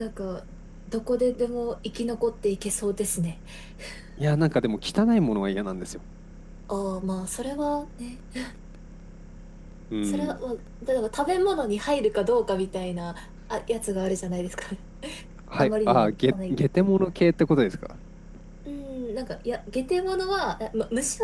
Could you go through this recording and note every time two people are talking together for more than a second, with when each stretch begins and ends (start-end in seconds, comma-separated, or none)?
15.6-16.9